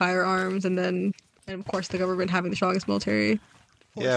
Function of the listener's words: taking over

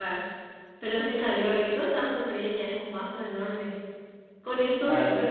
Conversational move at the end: listening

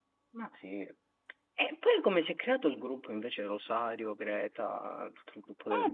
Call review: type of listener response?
taking over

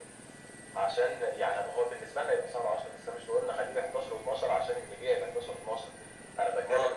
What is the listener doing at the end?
listening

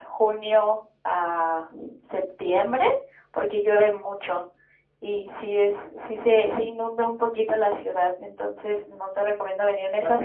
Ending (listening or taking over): taking over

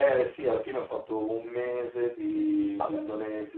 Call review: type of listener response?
listening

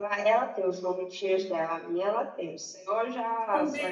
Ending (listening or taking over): taking over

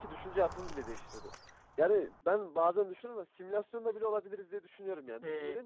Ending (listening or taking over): listening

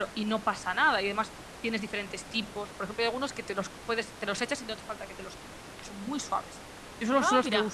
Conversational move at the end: listening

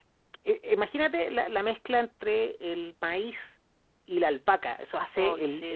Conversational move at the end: listening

